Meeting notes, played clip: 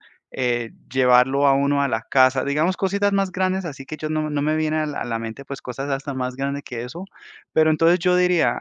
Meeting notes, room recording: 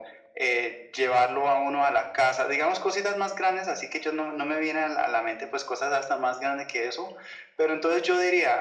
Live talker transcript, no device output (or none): none